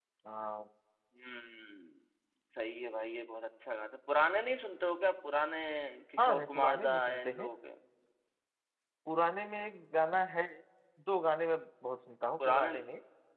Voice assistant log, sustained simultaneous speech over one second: present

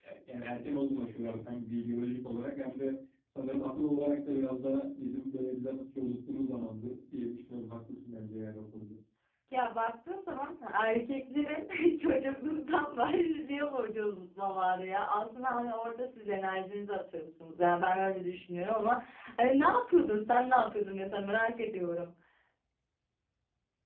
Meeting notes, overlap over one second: none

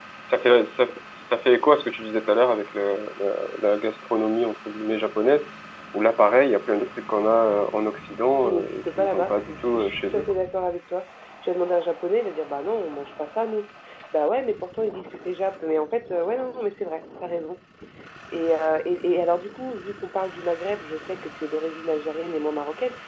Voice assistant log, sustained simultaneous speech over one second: present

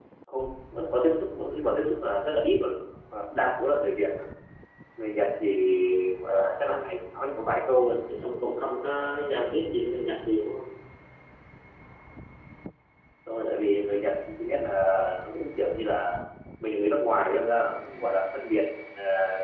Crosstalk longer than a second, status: none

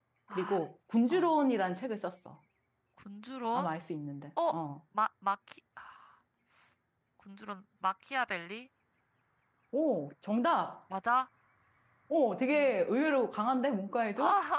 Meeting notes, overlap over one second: none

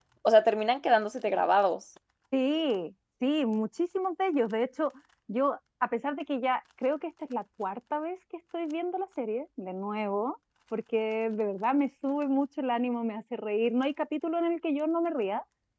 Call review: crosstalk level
none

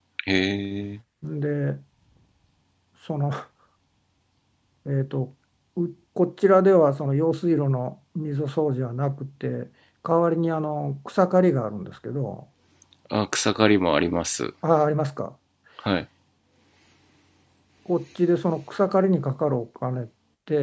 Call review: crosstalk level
none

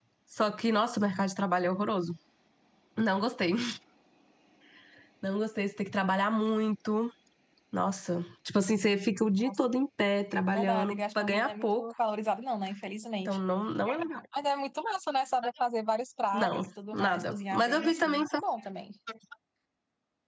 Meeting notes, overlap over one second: present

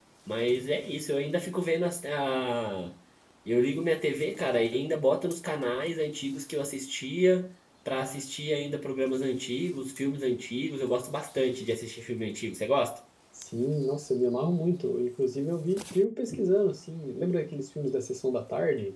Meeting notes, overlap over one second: none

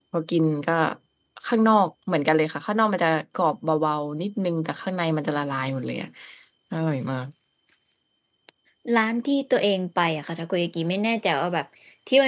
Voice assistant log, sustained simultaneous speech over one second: none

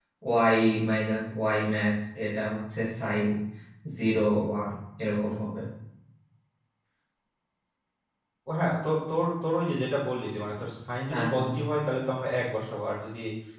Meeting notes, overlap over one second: none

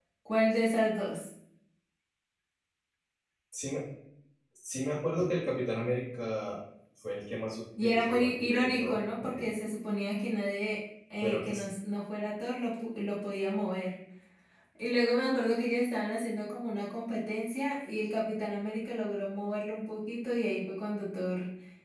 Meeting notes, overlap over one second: present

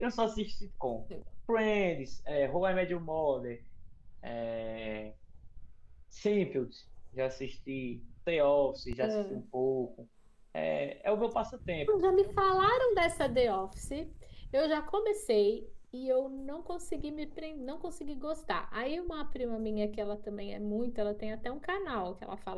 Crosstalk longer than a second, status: none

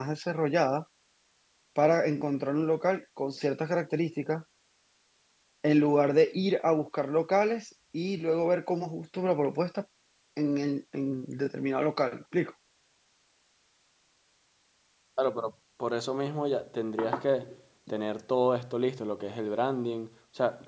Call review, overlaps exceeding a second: none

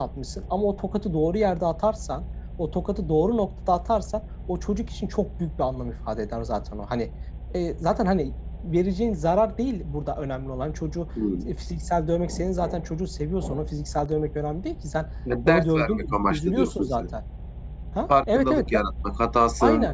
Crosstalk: present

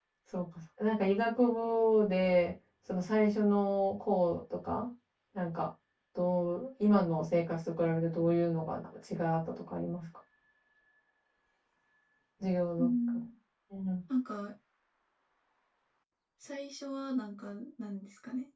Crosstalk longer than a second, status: none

